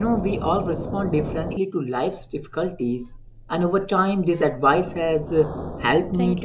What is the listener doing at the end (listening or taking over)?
listening